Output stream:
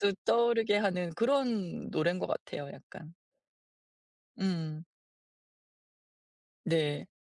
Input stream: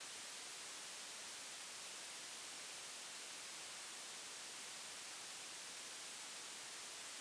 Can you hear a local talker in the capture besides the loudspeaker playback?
No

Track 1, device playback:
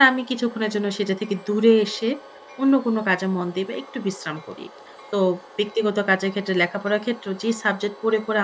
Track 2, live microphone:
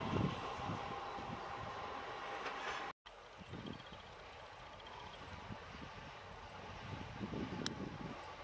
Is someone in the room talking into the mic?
No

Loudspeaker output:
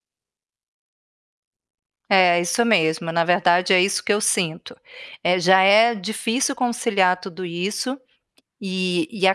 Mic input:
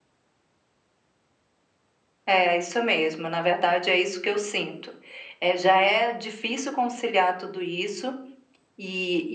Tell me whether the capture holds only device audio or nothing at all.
Yes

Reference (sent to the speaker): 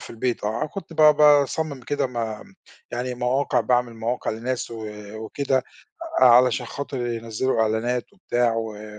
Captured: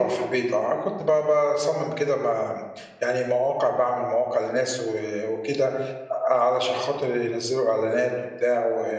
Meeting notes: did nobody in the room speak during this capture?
Yes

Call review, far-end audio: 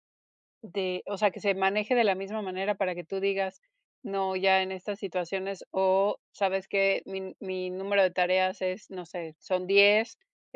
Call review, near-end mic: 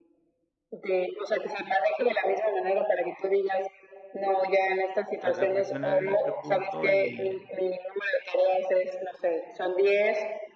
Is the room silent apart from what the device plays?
No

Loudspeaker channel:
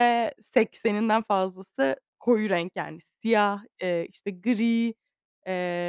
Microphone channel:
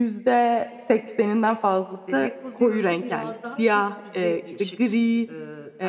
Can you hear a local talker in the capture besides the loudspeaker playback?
Yes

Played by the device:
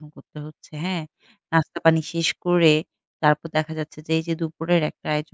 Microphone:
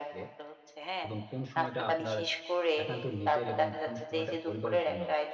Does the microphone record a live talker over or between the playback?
Yes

